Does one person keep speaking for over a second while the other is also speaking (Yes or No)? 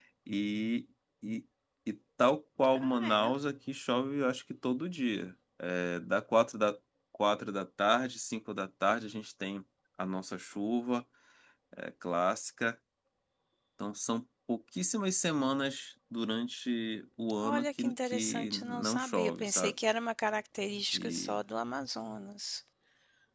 Yes